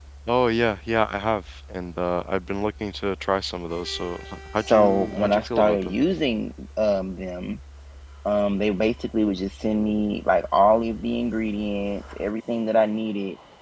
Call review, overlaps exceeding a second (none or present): present